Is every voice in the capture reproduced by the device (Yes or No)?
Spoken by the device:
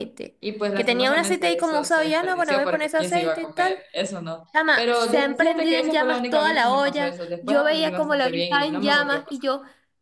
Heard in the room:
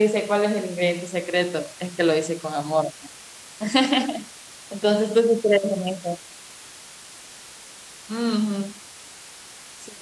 No